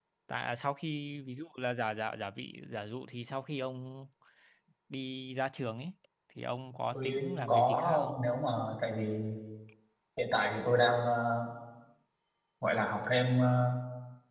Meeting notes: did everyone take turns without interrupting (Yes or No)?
No